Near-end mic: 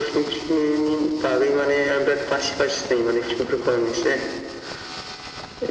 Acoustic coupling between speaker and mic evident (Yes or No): Yes